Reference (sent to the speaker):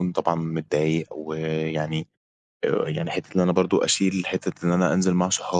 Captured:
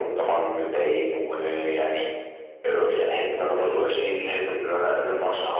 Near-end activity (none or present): none